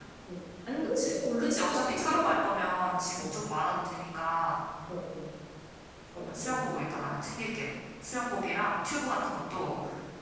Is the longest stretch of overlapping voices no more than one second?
No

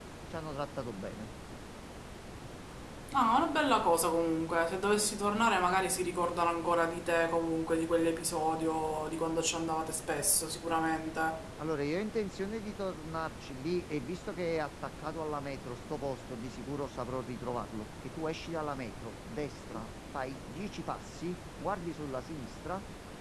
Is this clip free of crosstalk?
Yes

